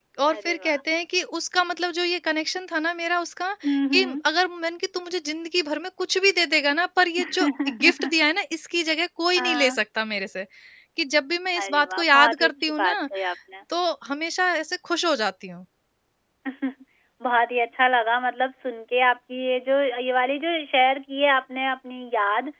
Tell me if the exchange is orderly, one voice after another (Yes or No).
No